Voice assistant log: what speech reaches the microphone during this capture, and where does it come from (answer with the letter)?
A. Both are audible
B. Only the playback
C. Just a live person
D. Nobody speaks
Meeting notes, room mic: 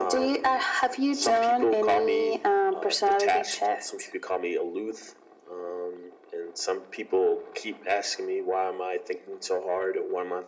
B